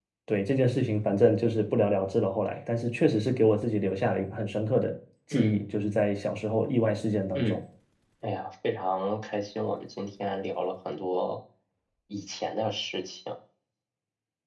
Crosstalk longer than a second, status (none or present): none